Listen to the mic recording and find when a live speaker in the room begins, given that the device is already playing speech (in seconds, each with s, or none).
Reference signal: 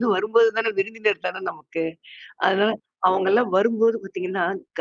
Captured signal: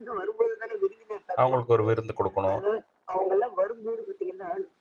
1.4 s